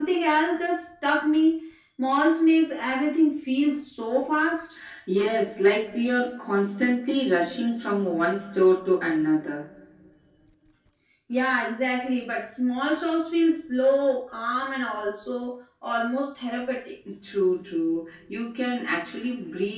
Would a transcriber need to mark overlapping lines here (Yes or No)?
No